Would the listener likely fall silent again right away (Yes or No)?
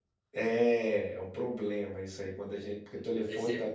Yes